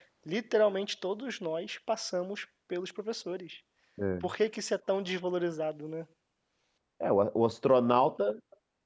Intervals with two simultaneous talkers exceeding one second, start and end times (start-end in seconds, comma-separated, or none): none